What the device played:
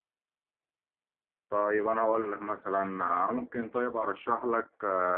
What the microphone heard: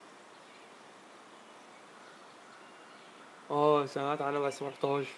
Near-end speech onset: 3.5 s

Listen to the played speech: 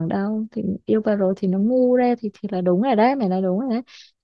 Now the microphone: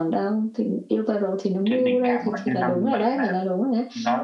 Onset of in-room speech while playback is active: 1.6 s

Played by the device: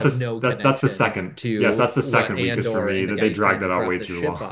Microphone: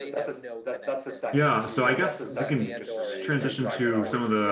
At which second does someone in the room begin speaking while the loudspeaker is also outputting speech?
1.3 s

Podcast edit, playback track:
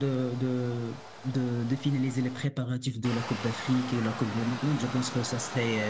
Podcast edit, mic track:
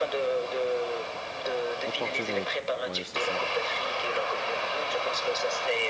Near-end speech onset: 1.8 s

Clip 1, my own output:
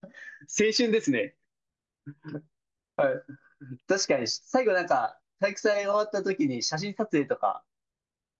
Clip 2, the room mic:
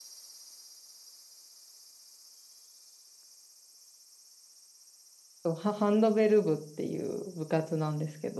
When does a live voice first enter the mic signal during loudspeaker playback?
5.4 s

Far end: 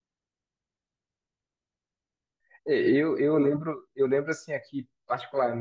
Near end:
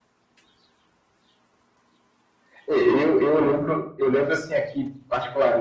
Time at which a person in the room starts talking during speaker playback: none

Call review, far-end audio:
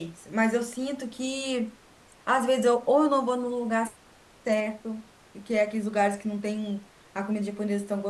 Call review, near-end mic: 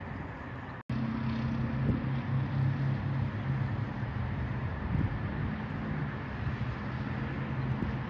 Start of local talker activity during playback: none

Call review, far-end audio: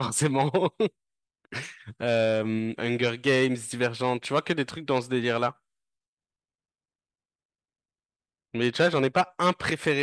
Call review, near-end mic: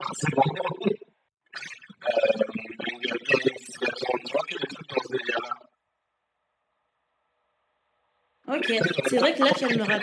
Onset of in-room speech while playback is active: 8.5 s

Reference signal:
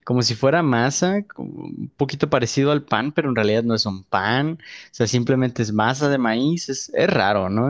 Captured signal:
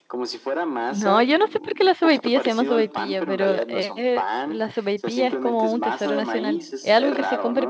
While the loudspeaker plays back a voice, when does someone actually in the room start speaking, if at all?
0.9 s

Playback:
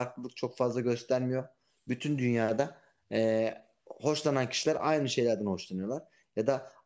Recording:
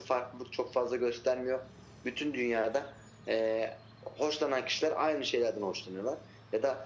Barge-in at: none

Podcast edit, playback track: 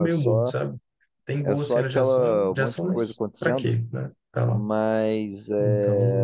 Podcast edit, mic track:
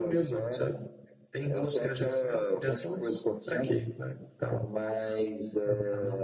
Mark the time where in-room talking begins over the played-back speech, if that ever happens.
none

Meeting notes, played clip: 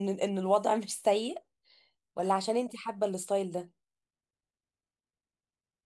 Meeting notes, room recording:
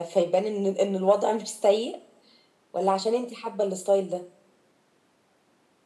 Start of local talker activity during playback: none

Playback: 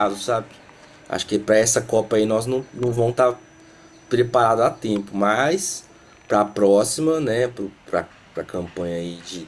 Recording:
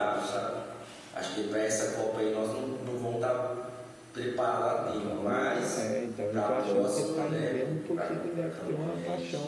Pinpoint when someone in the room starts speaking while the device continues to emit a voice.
4.8 s

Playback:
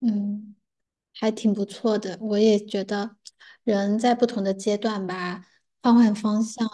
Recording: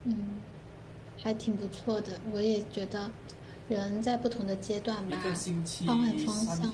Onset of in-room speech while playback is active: 5.1 s

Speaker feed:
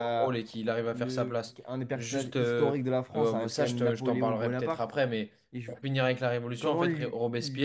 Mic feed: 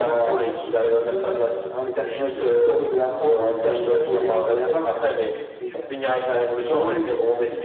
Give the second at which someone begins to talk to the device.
none

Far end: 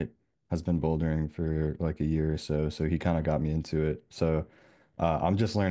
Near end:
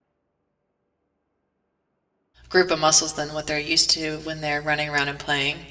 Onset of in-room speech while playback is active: 2.5 s

